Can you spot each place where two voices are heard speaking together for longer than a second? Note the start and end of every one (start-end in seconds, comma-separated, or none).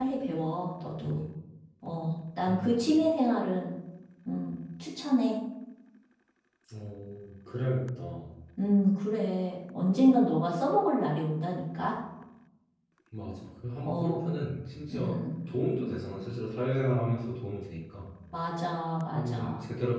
none